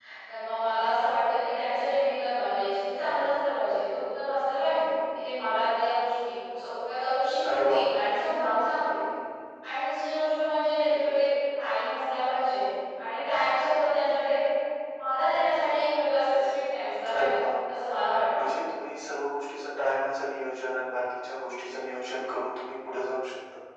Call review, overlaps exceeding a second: none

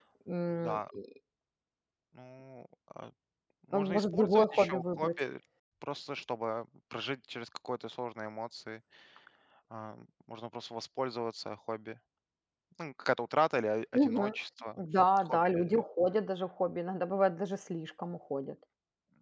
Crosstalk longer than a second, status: present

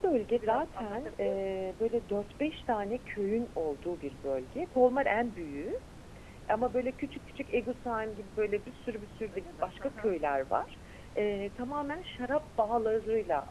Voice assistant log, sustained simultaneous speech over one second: present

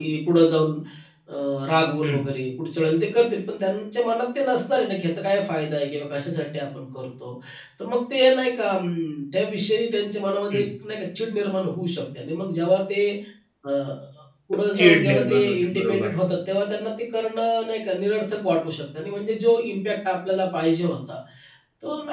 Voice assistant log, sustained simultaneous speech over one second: present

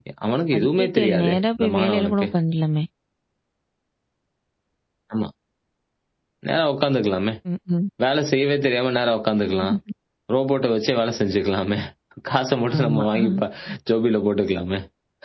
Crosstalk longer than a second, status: present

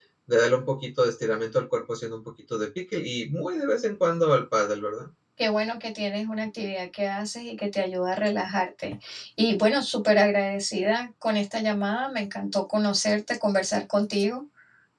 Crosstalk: none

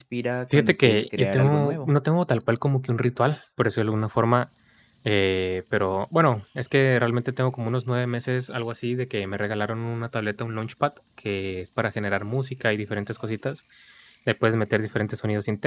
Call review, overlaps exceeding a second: present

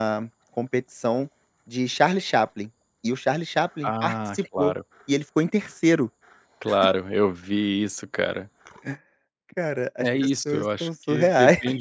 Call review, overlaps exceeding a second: present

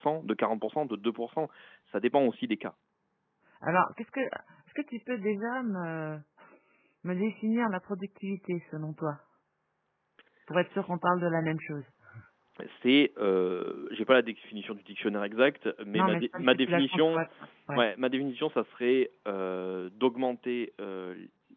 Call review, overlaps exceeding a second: present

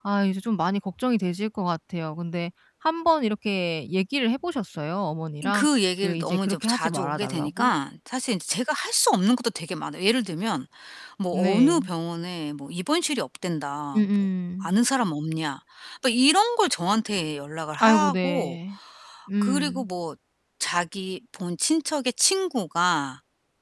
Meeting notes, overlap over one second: present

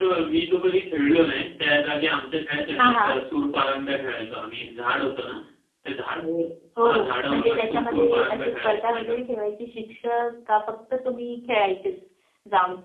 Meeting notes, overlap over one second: present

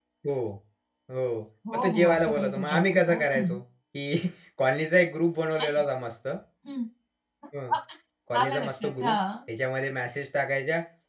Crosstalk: present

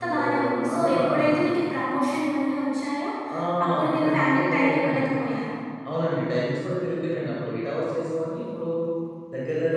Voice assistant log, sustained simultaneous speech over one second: present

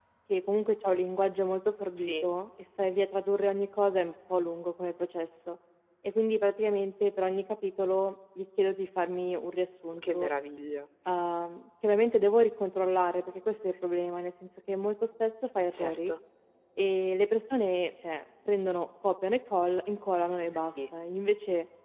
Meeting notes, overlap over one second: none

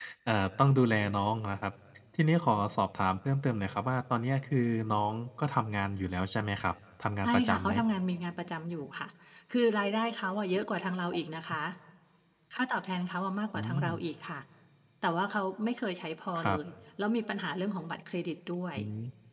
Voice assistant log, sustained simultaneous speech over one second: none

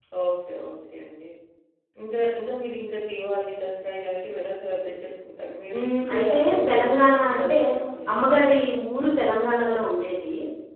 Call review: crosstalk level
present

